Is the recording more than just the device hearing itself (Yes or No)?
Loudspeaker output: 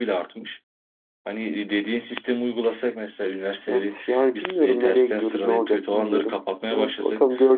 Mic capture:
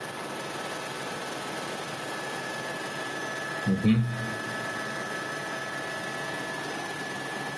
Yes